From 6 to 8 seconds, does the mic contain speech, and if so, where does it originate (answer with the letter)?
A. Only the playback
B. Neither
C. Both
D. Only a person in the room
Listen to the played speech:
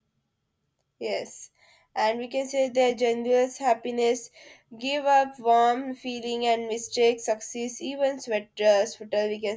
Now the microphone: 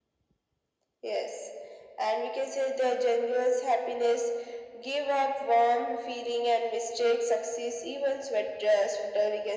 A